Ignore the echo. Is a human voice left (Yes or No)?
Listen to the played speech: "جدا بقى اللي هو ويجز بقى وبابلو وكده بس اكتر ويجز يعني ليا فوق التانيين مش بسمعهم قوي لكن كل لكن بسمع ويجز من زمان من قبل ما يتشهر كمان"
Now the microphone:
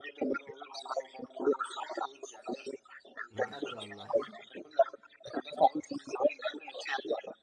Yes